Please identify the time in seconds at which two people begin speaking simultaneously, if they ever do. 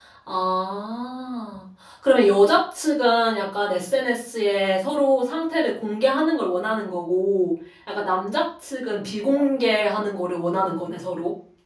none

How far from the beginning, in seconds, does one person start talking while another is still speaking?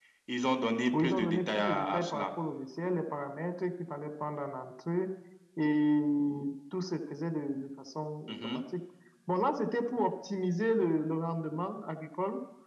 1.0 s

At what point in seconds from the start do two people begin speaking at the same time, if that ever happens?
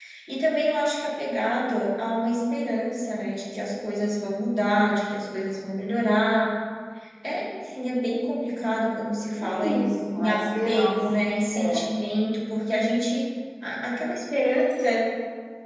9.4 s

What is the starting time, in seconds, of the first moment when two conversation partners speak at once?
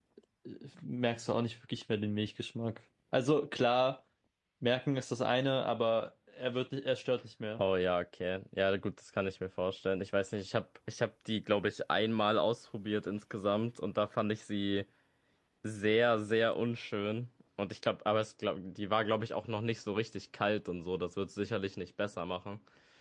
none

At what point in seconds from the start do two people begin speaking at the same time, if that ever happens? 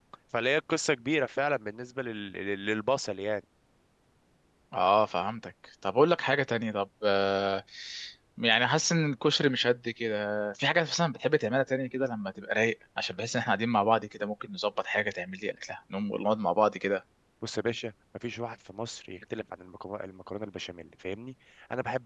none

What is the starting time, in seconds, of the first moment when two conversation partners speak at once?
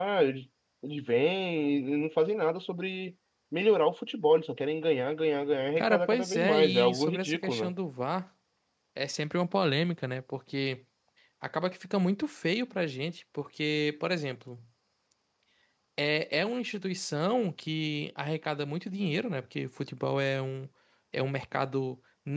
5.8 s

